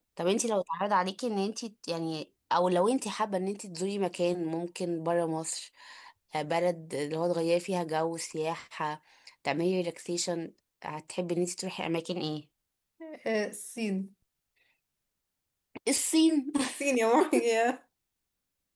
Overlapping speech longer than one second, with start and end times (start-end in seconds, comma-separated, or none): none